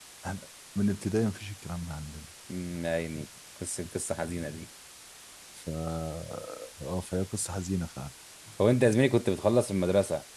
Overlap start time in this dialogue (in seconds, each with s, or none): none